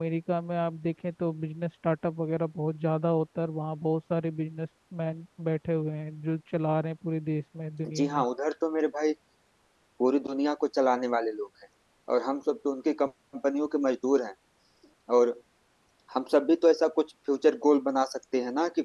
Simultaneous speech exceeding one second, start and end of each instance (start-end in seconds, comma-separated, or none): none